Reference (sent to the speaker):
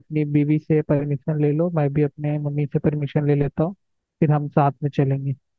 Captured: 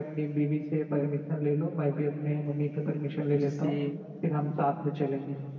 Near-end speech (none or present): present